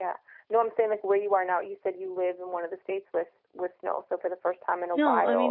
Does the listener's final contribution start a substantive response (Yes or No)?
Yes